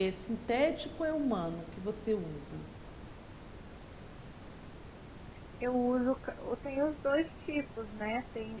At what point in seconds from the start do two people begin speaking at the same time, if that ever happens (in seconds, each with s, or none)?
none